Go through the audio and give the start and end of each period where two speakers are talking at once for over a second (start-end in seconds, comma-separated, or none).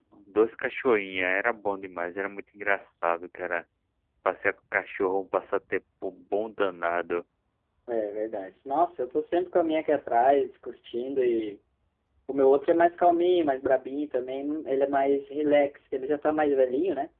none